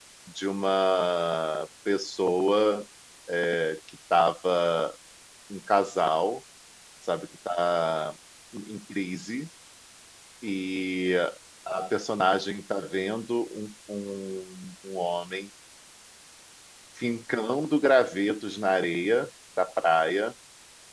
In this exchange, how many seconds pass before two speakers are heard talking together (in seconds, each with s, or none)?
none